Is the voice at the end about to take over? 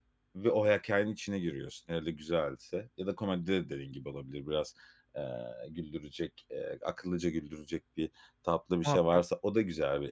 No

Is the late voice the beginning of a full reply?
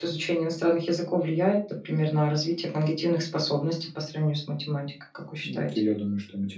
Yes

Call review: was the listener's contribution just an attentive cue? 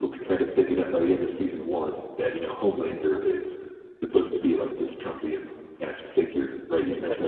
Yes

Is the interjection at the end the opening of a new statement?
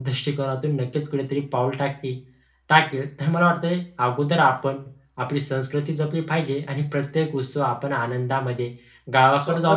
No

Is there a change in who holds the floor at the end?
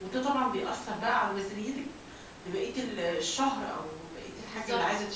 No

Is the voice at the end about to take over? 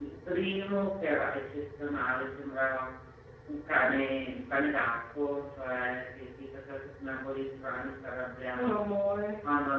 No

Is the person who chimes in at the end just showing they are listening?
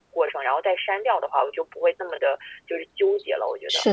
No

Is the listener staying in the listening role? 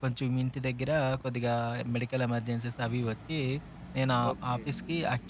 Yes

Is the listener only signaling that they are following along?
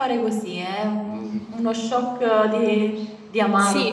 No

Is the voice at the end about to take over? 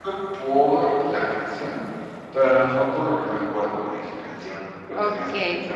Yes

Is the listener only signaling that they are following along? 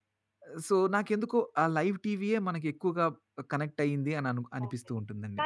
No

